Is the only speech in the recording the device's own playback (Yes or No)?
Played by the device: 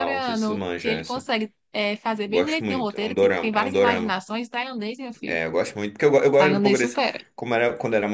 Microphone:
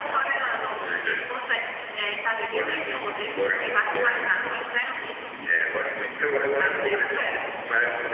Yes